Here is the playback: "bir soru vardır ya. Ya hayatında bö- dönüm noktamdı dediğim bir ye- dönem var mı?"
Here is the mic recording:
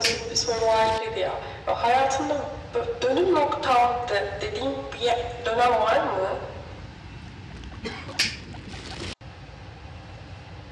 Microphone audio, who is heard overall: echo only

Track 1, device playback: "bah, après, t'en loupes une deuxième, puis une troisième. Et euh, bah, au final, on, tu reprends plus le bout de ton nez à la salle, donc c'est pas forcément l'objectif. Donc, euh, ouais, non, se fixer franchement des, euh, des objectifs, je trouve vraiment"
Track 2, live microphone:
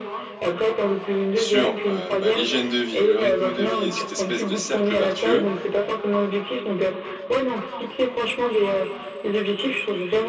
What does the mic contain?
both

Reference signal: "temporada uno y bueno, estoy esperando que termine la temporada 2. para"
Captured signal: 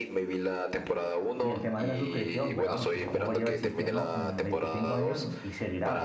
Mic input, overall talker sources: both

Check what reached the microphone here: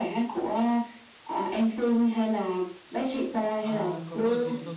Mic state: both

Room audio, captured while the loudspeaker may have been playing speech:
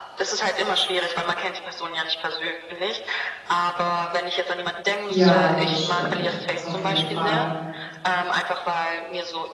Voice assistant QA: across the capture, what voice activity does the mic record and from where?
both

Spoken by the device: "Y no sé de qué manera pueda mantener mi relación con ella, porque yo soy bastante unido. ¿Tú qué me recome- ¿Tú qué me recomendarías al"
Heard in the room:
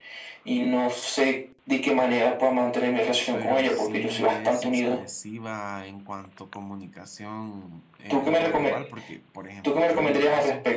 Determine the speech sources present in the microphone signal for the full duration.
both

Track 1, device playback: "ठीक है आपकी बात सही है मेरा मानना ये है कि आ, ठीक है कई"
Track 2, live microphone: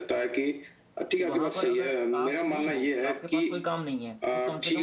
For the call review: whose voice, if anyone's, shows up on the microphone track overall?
both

